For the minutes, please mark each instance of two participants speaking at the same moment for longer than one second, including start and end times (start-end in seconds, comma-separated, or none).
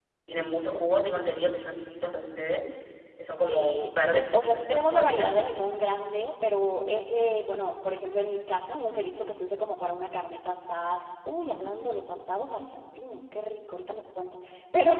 3.5-5.3